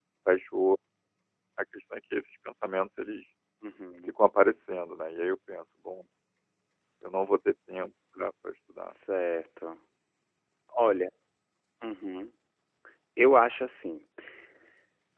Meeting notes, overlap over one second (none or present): none